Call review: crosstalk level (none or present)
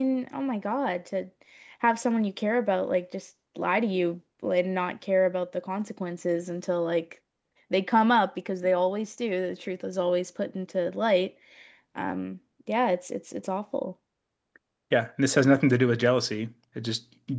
none